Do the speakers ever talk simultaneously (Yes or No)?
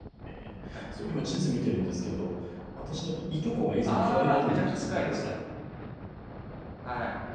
Yes